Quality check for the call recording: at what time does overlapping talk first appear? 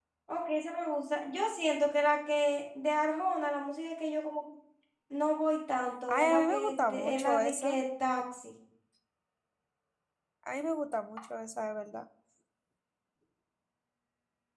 6.1 s

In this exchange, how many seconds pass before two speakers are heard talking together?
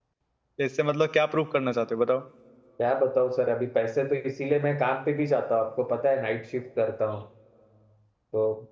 none

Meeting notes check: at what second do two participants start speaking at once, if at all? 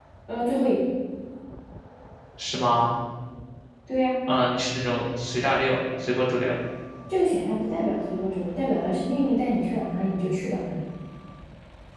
none

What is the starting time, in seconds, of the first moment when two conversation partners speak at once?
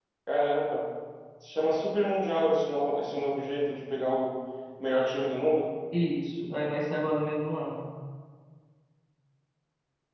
none

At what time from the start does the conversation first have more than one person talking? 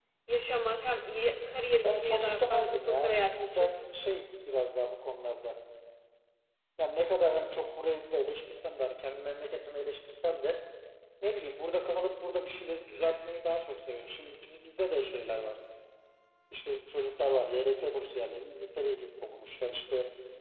1.8 s

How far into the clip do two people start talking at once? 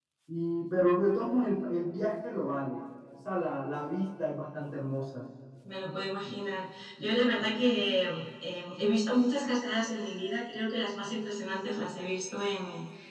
none

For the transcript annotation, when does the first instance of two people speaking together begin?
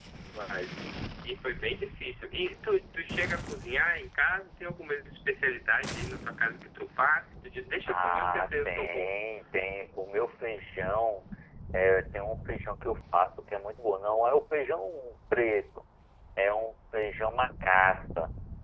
7.8 s

